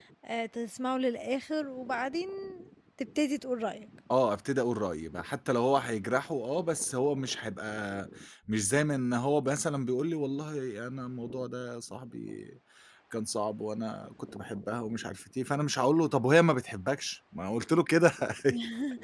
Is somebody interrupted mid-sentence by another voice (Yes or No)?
No